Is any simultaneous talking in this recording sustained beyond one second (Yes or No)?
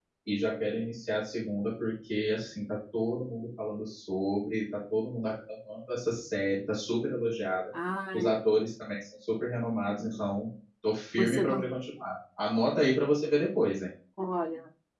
No